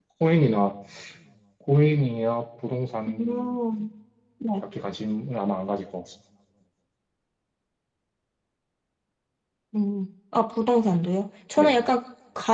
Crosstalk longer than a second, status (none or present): none